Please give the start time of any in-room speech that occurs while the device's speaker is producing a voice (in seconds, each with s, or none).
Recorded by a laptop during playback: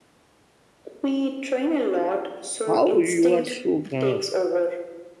2.6 s